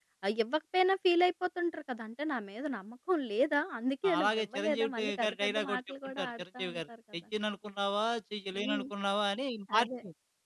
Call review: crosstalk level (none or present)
present